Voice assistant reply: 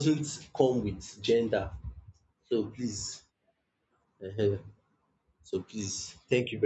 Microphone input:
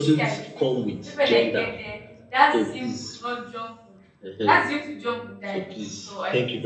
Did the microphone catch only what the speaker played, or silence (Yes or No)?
No